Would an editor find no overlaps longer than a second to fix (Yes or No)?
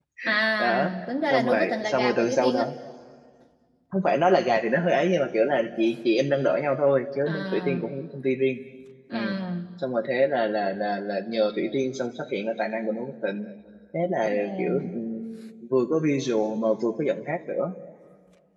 No